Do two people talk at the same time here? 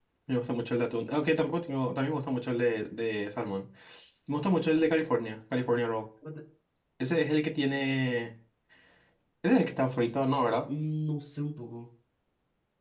No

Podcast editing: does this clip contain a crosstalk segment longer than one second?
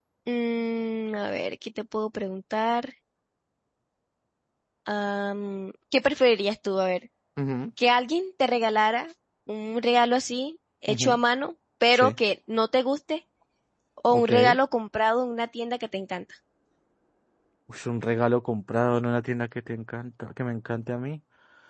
No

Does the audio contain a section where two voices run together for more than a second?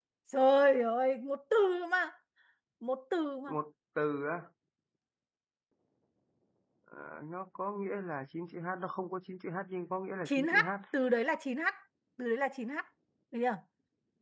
No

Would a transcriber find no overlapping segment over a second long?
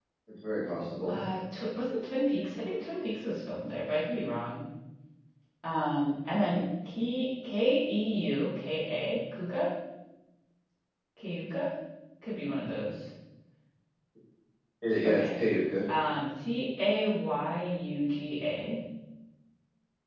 Yes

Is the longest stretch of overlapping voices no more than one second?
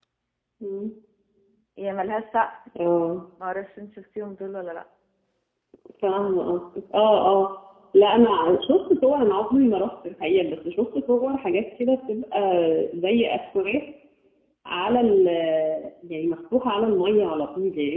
Yes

